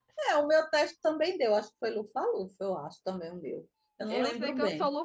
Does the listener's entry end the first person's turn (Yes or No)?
Yes